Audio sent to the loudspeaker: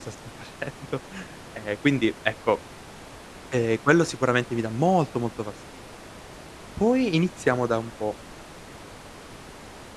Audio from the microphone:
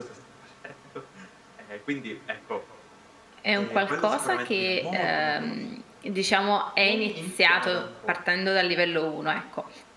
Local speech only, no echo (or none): è un qualcosa che, ehm, diciamo è iniziato partendo dal livello 1, ecco.